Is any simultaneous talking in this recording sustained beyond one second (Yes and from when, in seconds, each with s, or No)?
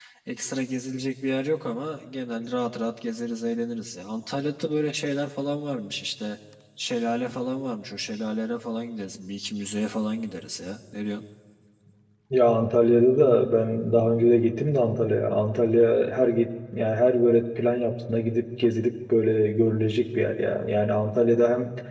No